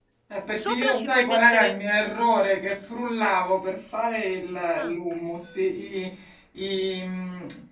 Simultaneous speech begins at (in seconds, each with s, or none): 0.5 s